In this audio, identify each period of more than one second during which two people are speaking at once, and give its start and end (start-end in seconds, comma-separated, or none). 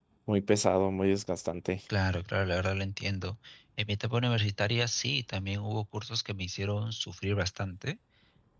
none